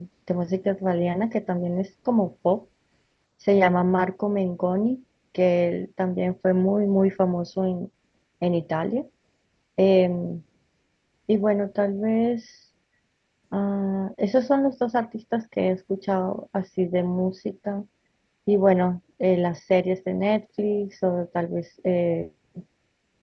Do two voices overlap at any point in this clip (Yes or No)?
No